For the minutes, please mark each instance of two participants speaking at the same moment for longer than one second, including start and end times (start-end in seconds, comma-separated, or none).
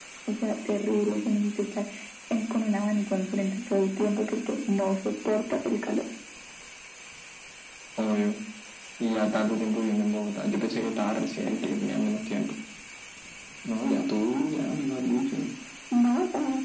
none